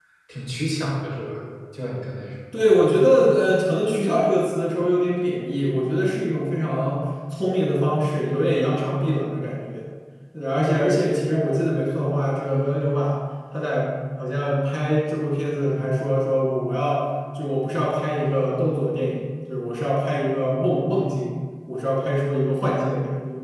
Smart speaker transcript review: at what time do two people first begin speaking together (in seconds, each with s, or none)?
none